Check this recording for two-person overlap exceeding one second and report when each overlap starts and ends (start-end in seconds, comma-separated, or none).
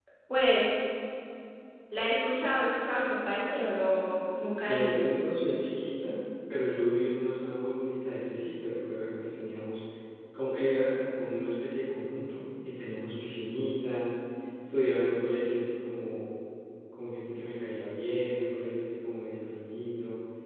none